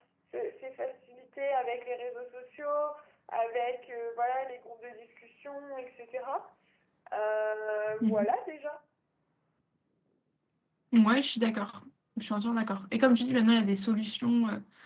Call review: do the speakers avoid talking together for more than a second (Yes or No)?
Yes